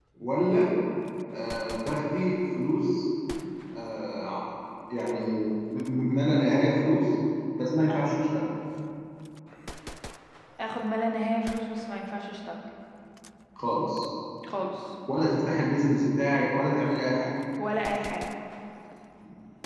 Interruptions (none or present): none